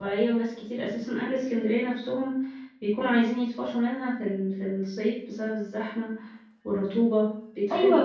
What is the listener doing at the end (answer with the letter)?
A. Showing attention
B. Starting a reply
B